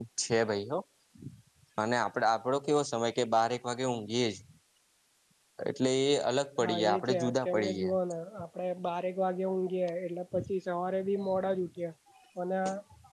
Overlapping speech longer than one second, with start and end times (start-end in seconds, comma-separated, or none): 6.6-8.0